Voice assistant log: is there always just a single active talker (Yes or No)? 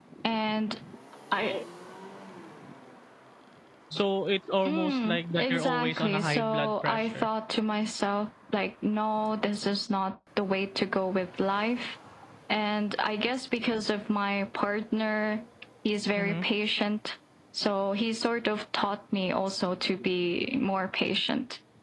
No